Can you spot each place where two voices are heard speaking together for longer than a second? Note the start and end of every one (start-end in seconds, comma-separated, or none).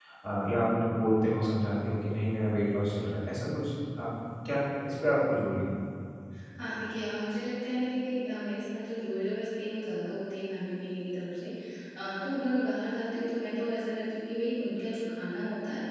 none